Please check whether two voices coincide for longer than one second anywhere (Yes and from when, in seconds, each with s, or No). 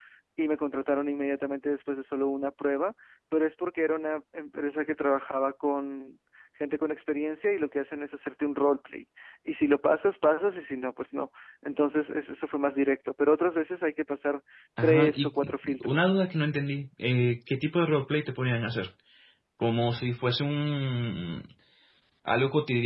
Yes, from 14.8 s